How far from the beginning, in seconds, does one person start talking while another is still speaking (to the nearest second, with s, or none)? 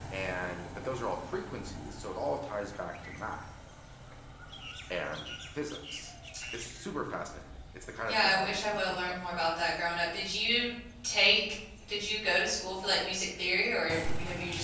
8 s